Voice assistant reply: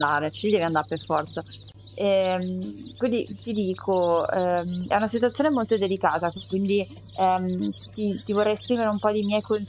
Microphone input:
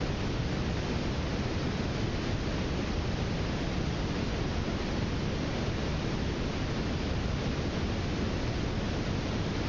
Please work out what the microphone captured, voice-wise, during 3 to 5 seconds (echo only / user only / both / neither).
neither